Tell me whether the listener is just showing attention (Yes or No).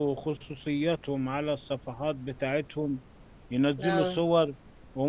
Yes